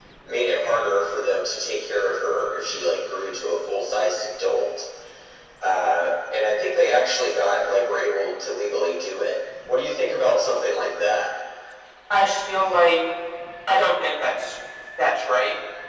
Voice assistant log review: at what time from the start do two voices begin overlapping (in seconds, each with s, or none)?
none